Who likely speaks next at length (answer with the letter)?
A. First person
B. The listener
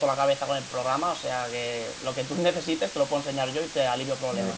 B